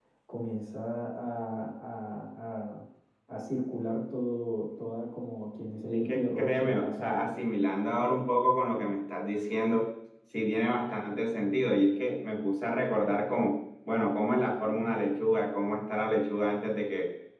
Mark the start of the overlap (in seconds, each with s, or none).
5.9 s